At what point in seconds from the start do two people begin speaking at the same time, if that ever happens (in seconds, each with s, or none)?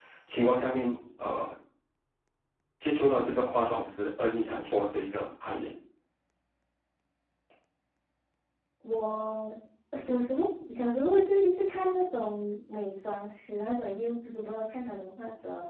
none